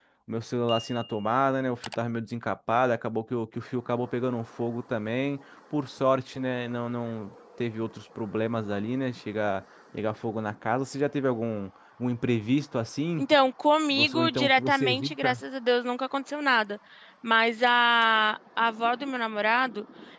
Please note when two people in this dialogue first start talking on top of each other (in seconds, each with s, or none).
13.9 s